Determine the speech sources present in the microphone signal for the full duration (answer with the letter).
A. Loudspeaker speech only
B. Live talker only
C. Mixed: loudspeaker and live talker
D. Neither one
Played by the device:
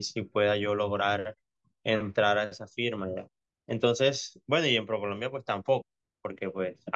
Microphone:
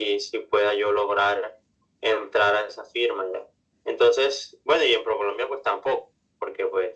A